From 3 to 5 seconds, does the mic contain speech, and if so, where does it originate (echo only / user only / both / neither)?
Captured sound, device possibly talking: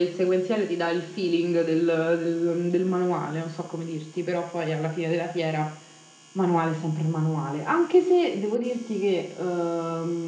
echo only